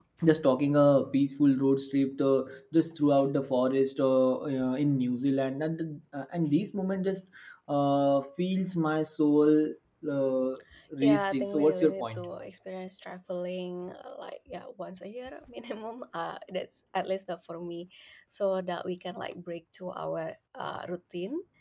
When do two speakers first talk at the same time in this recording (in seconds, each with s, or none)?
11.0 s